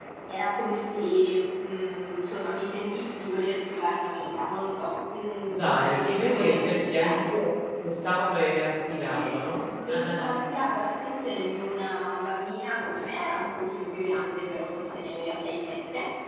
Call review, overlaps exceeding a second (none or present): present